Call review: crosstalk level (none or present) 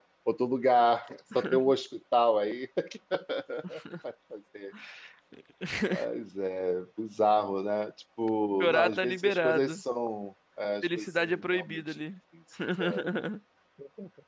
present